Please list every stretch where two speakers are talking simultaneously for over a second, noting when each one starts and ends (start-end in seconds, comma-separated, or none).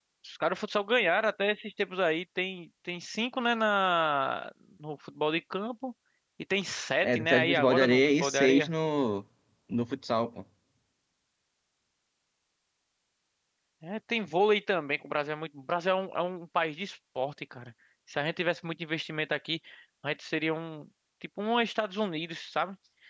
7.0-8.7